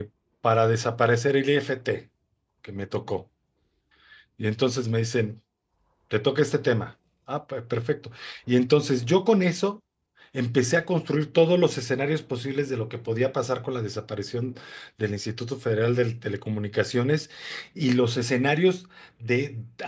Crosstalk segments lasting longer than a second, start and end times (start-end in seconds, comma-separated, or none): none